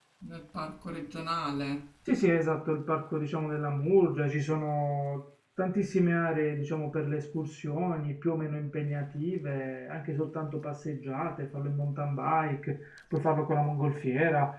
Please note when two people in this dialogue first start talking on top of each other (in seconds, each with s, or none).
none